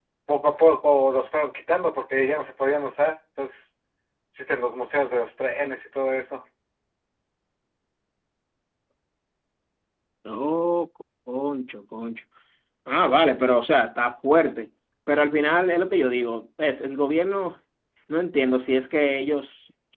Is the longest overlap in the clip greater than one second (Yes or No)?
No